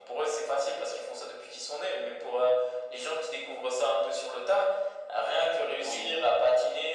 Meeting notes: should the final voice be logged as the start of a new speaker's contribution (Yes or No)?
No